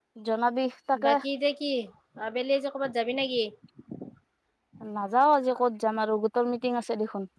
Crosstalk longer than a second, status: none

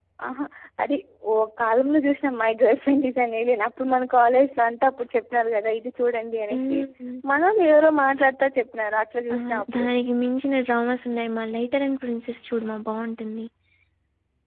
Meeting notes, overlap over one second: none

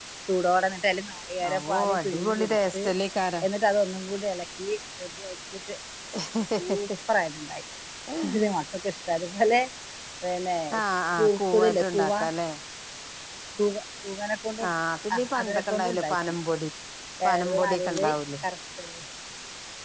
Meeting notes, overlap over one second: present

